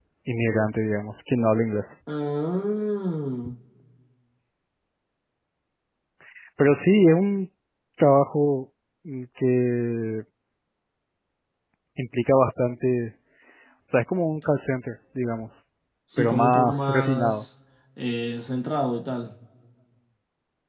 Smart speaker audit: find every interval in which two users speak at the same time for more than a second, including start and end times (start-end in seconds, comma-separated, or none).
16.2-17.4